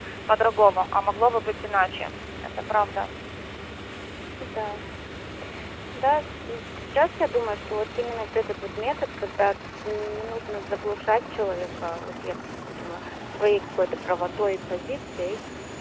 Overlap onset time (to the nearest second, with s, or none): none